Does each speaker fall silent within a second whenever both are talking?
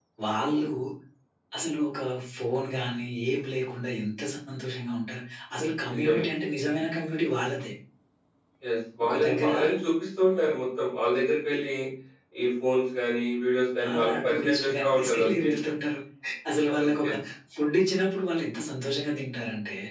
No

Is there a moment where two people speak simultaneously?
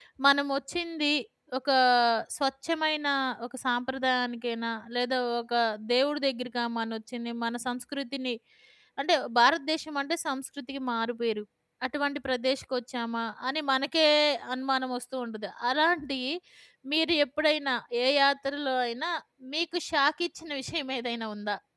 No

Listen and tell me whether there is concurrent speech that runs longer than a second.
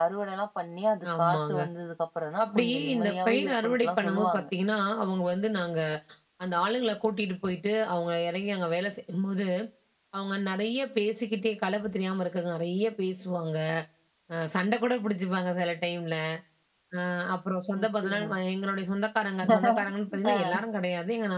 Yes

